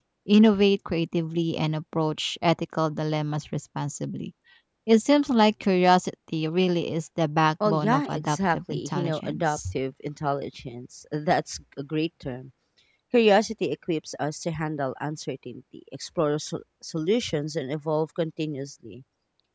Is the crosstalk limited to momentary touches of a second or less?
No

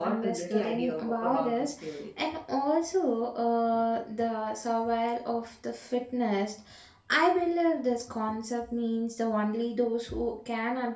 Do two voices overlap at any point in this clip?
Yes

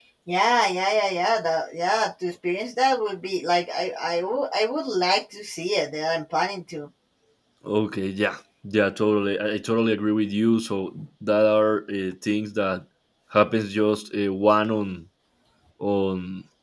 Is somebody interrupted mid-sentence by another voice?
No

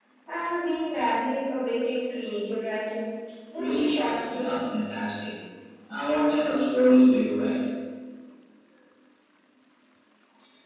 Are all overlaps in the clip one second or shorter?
No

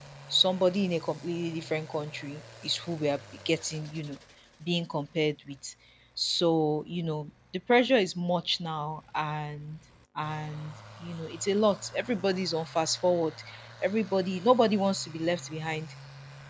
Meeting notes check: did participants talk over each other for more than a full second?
No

